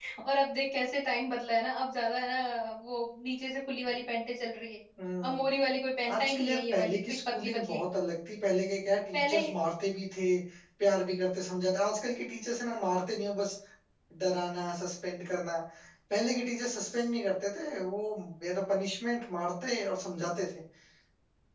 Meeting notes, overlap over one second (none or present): present